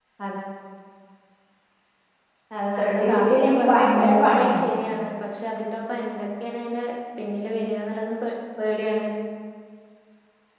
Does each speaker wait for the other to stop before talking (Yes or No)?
No